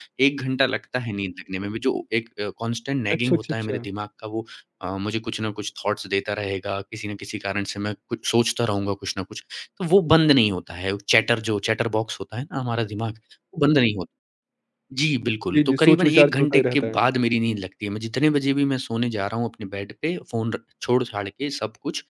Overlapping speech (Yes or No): Yes